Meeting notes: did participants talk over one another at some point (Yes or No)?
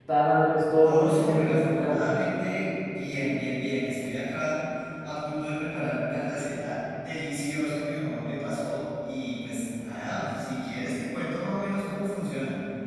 Yes